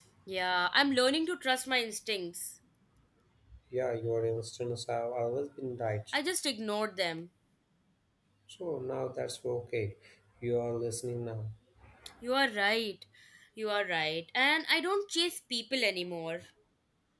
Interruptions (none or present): none